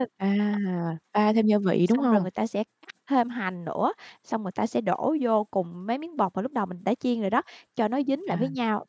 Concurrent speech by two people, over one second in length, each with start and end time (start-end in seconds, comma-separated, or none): none